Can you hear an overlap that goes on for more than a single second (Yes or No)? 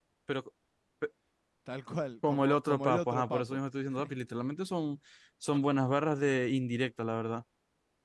Yes